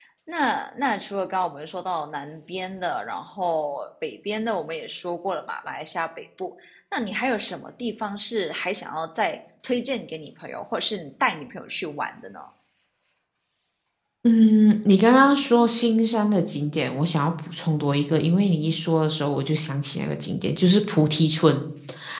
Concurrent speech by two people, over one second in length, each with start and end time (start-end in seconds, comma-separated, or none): none